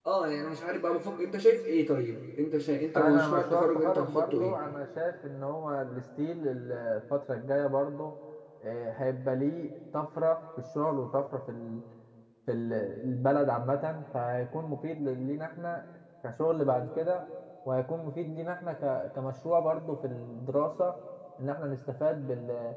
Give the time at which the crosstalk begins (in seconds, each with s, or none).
3.0 s